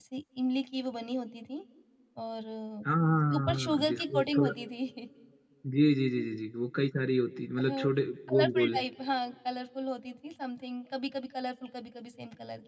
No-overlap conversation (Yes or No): No